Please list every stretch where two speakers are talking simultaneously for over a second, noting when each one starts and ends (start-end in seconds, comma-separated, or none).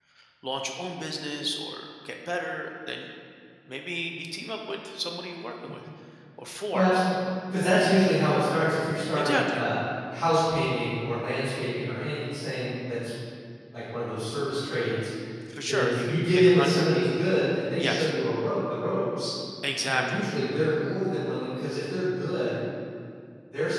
15.7-16.9